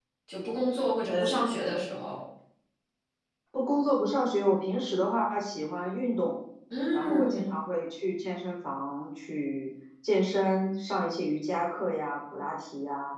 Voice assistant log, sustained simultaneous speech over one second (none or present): none